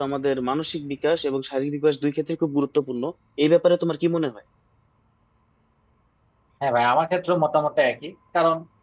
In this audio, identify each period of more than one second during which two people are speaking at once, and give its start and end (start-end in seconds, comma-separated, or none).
none